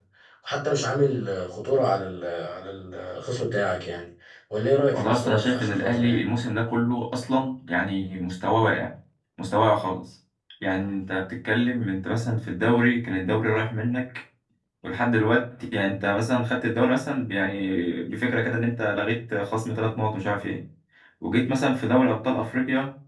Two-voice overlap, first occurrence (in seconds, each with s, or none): 4.9 s